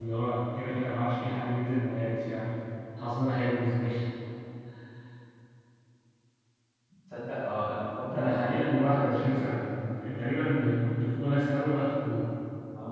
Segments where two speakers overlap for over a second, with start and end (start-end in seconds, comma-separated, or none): 8.1-9.5